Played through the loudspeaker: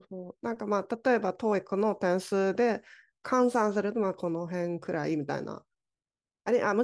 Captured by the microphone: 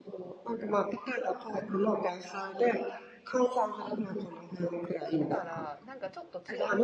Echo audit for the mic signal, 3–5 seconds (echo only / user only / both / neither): echo only